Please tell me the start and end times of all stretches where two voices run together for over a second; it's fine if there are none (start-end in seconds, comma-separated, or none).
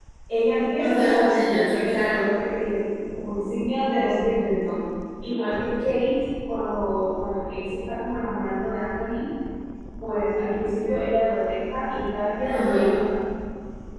0.8-2.1